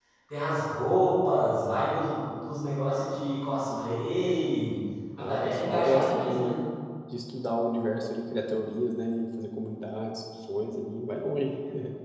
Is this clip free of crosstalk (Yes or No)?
No